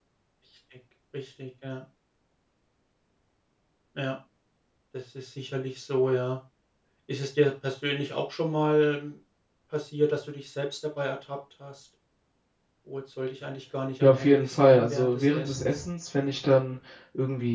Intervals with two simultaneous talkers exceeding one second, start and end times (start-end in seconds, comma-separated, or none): 14.0-15.7